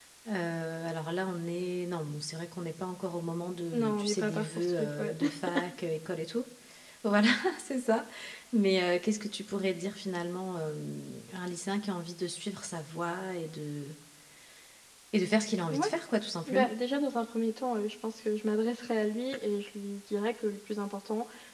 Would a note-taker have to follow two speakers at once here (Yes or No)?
Yes